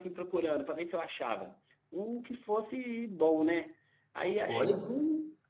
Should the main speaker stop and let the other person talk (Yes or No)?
No